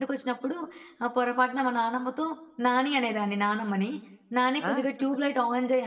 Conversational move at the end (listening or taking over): listening